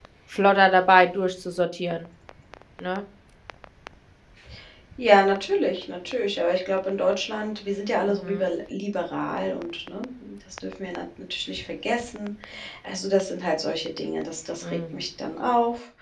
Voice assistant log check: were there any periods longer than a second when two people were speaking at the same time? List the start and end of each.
none

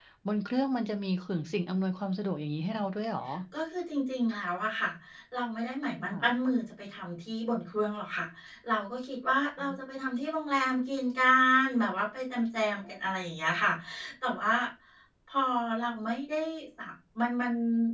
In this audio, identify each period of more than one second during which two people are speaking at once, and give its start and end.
none

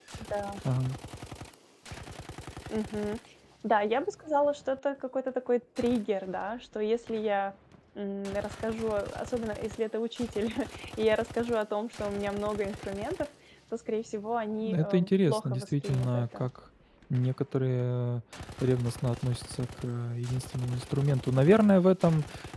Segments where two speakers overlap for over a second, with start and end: 14.6-16.5

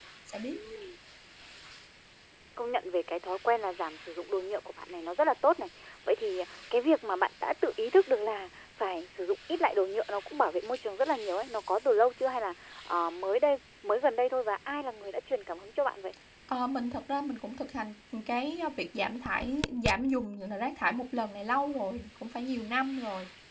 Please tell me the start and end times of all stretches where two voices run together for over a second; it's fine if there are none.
none

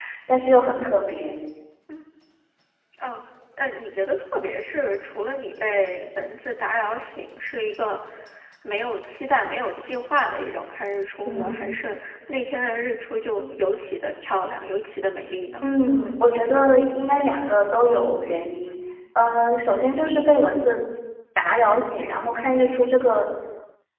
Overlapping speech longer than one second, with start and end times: none

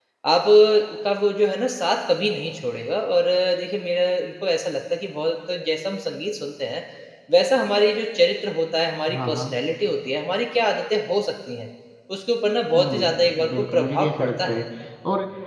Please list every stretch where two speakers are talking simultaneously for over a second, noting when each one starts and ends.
12.8-14.6

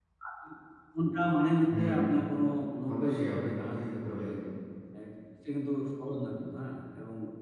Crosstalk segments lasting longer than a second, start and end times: 2.9-4.3

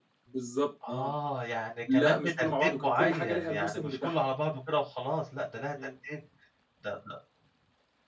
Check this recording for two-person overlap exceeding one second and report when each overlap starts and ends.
1.9-4.2

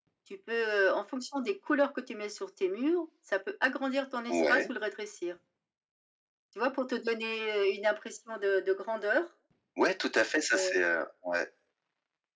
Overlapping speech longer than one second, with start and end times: none

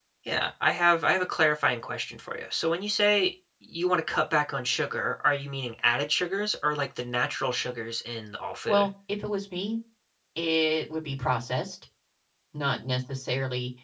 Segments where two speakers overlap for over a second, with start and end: none

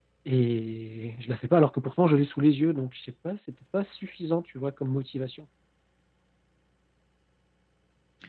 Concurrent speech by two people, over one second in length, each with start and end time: none

